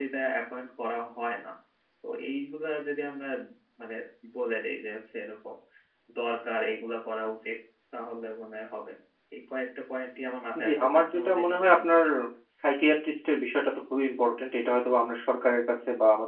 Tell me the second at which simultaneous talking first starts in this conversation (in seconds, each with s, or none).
10.6 s